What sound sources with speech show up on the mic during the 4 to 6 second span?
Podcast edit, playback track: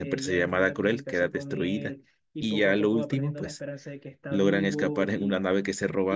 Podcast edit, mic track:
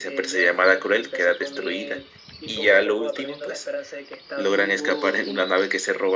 echo only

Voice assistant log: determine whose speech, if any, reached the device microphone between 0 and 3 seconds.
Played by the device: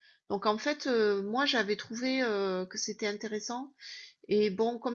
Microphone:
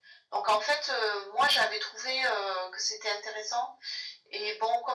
echo only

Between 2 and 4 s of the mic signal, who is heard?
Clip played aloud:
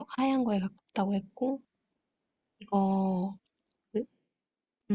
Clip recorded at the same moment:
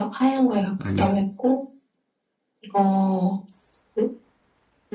echo only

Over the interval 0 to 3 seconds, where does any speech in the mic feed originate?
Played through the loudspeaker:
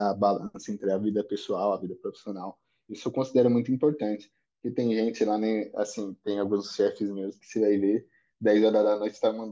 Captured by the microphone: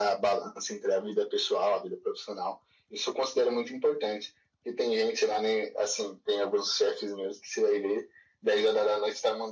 echo only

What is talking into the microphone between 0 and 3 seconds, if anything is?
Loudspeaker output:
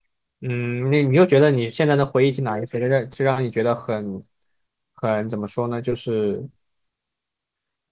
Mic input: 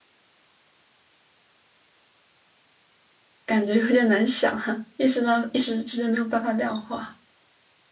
neither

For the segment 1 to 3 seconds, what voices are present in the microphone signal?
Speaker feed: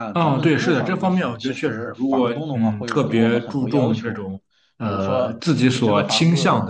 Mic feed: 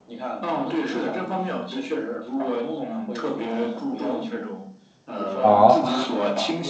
echo only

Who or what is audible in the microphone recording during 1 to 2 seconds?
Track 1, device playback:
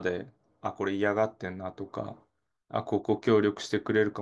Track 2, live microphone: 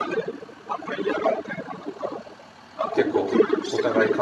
echo only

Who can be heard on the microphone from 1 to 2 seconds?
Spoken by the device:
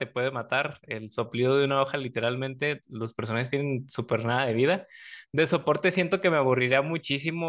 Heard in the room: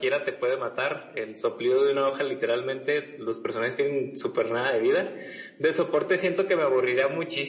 echo only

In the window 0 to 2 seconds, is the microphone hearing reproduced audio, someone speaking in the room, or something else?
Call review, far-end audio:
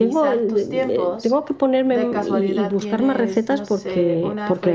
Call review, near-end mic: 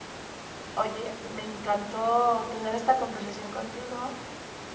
user only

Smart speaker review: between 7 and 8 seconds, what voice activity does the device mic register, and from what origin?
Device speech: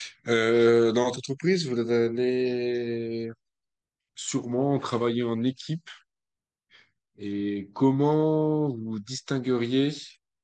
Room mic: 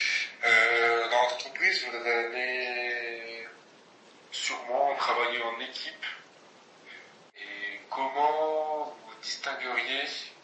echo only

